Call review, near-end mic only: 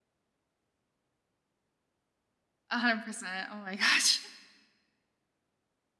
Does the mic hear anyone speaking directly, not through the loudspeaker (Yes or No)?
Yes